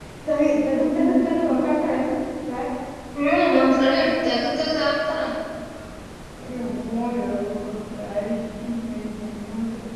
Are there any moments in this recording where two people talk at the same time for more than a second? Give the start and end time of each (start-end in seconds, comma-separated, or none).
none